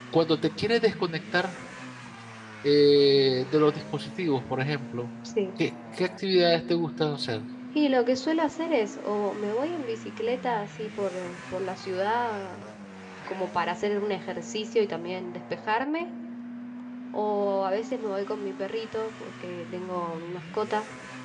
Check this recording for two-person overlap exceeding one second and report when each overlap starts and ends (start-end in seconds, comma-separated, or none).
none